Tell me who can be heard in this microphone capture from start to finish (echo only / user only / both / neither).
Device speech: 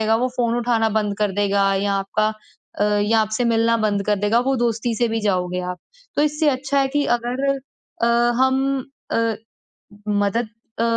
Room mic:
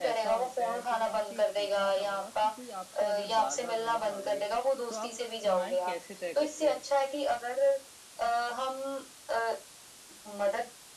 both